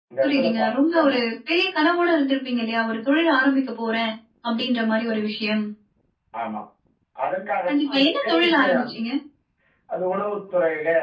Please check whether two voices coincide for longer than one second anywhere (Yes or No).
Yes